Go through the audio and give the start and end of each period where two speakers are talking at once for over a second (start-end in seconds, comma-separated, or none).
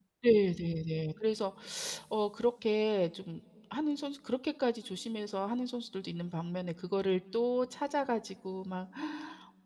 none